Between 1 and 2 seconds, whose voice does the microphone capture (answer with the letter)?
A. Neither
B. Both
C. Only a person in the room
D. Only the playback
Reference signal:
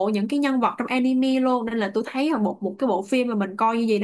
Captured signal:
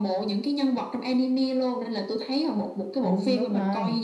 D